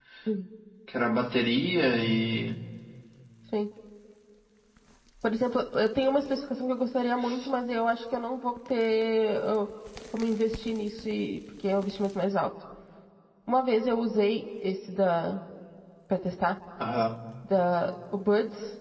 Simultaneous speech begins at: none

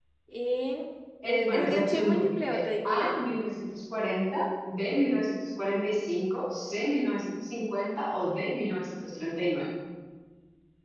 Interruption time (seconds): 1.2 s

